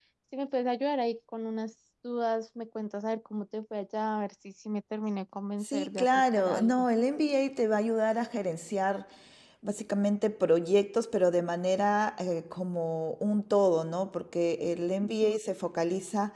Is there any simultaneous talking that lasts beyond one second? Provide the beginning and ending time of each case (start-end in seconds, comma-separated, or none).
5.6-6.8